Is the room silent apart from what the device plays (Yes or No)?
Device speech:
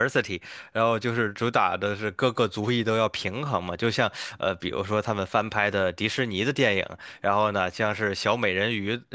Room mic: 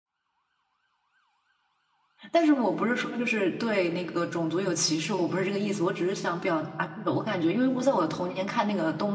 No